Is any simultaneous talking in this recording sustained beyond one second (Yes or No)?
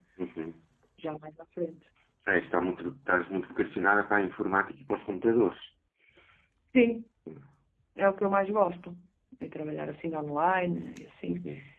No